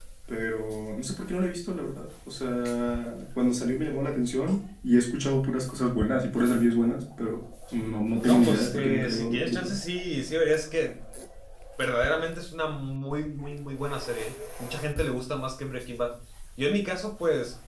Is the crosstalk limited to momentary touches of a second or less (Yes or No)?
No